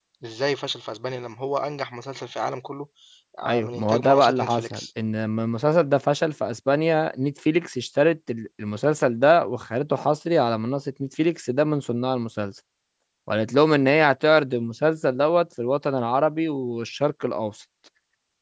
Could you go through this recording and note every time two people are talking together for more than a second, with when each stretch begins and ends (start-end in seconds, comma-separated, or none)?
3.4-4.8